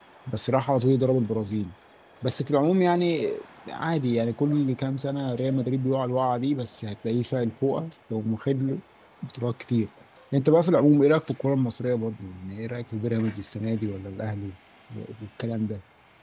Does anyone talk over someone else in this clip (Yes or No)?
No